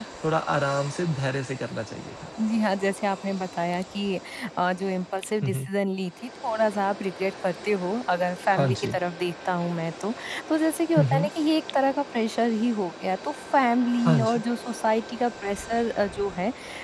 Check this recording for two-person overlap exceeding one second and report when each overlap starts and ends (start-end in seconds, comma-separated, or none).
none